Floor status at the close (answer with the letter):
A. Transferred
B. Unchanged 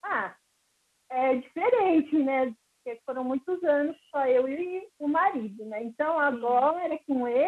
B